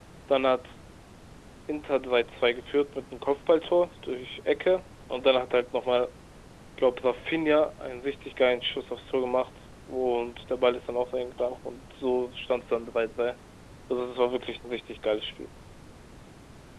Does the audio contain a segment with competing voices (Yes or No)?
No